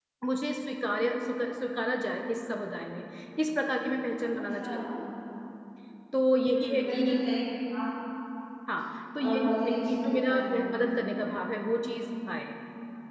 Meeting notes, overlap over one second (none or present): present